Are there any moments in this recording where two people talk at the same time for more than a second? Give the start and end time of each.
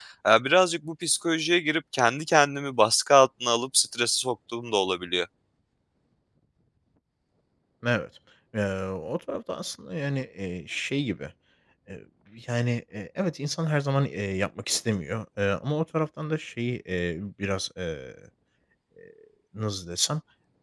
none

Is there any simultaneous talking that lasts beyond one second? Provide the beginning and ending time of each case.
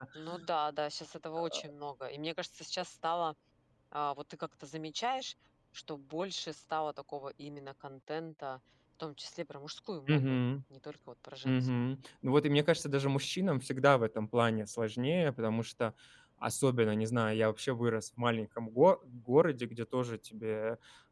none

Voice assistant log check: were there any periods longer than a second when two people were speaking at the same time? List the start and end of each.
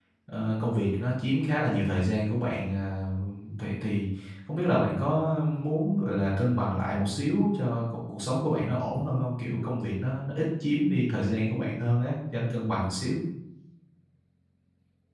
none

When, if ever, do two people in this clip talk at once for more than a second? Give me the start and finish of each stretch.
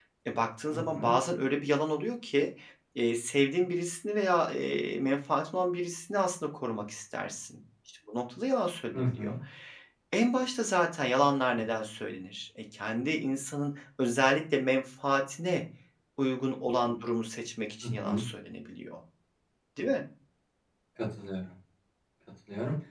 none

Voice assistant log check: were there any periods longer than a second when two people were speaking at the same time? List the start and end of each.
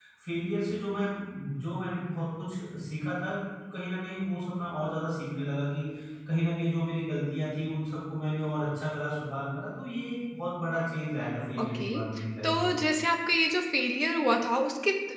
none

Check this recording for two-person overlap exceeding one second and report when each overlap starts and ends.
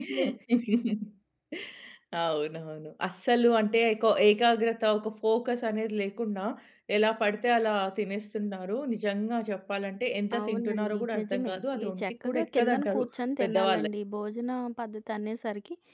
10.4-13.0

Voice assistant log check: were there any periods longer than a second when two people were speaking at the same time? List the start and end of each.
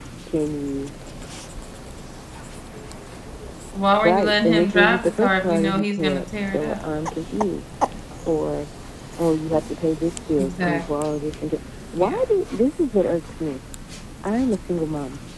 4.0-6.8

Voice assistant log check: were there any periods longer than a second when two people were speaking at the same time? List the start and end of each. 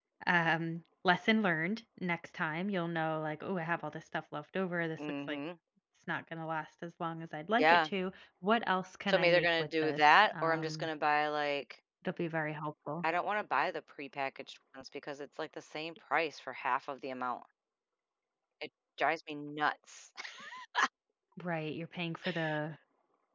9.1-10.9

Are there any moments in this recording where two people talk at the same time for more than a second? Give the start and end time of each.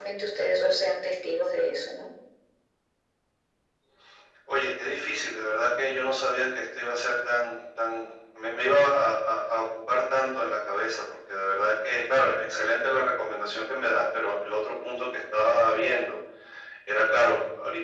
none

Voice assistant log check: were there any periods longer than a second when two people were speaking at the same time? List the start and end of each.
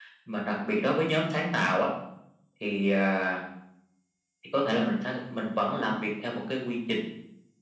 none

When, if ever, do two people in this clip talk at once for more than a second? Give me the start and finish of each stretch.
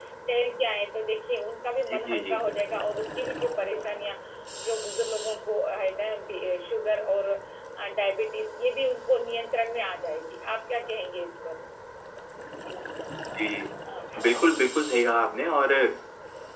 none

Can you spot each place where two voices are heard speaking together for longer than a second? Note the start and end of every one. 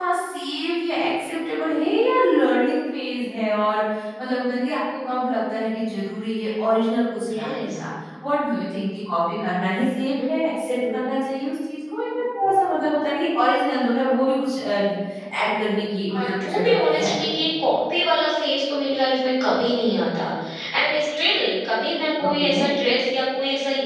16.1-17.4

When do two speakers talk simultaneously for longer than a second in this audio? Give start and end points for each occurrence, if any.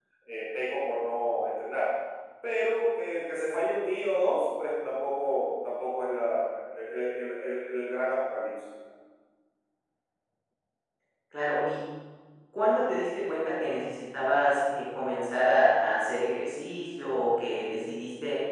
none

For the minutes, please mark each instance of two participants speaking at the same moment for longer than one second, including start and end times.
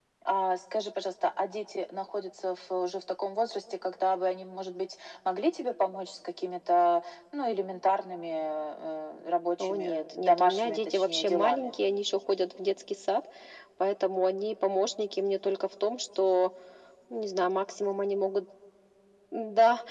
9.6-11.8

